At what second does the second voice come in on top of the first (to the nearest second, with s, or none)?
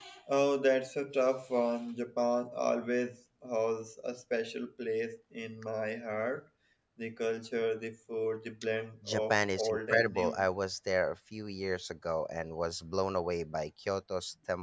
9 s